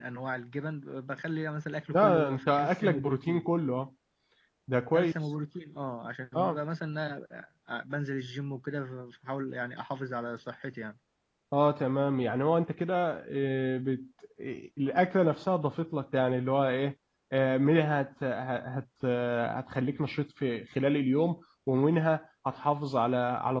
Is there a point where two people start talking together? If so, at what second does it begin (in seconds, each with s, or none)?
1.9 s